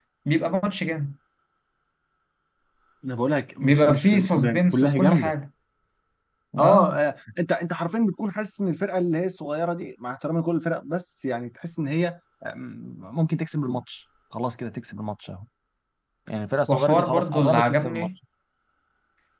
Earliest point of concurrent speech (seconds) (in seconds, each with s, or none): 3.6 s